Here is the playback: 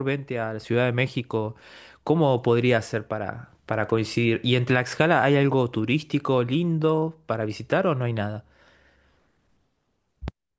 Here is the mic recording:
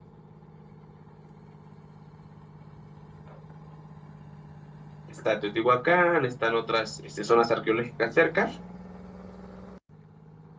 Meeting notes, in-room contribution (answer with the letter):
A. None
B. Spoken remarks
B